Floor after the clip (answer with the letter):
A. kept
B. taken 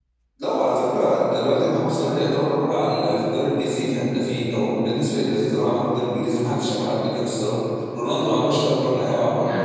B